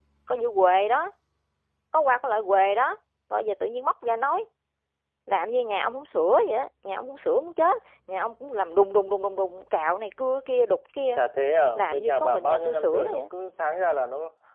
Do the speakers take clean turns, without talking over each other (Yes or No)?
No